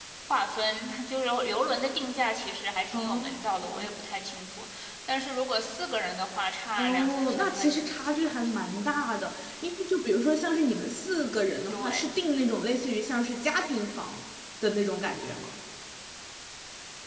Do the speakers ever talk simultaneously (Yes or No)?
Yes